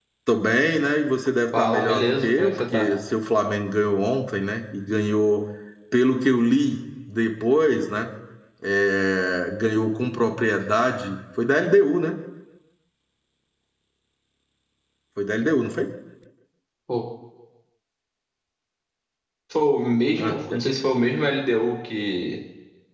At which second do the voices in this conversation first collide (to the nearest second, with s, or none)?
2 s